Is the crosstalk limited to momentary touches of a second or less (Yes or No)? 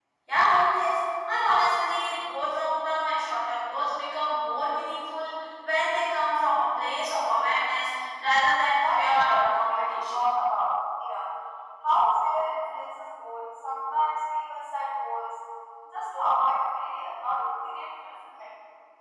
No